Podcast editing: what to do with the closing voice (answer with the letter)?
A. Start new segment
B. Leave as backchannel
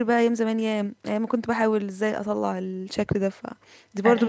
A